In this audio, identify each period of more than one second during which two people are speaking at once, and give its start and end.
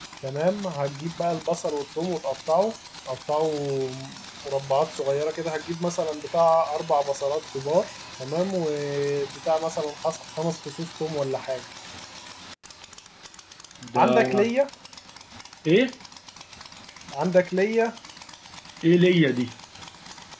none

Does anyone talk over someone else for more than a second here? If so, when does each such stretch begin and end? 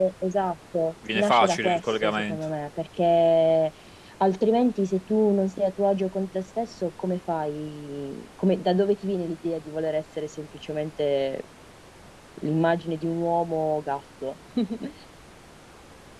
1.1-2.4

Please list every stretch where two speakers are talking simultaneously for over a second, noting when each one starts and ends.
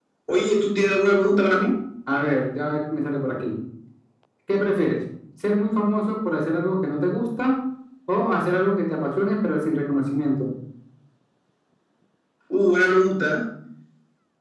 none

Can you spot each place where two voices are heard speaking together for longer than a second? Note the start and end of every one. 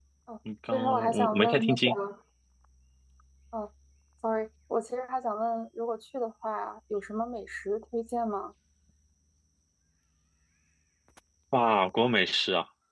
0.7-1.9

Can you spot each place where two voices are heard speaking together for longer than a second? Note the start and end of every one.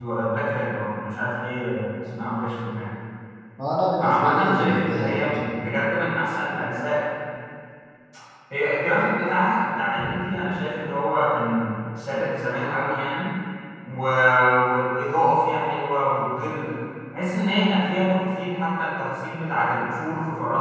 4.0-5.3

